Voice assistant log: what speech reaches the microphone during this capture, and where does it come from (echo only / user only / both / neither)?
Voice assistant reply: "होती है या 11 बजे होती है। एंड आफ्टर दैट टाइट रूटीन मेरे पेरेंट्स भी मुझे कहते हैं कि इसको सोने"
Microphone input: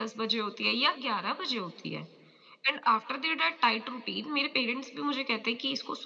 echo only